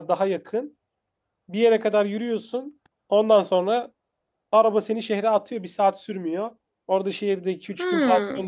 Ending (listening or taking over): listening